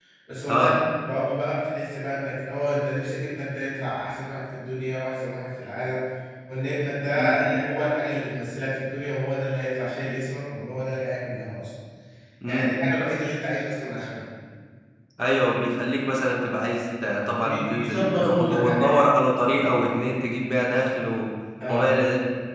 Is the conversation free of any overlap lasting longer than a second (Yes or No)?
No